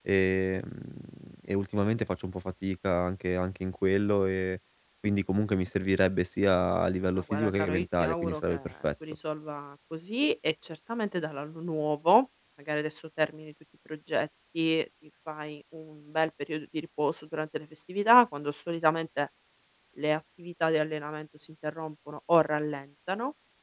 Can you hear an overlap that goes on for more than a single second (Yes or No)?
Yes